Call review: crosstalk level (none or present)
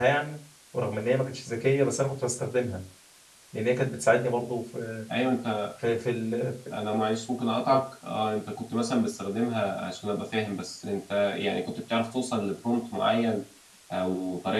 none